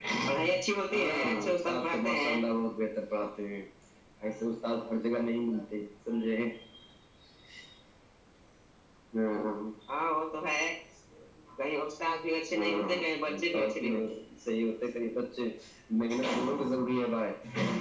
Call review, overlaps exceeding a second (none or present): present